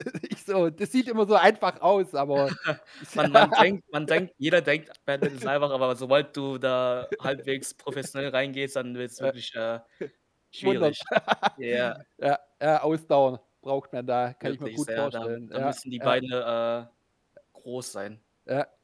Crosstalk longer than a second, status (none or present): present